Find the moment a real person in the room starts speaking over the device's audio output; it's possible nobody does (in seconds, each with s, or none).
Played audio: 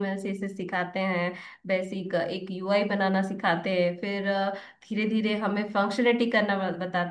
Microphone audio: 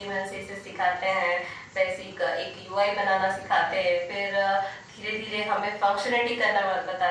none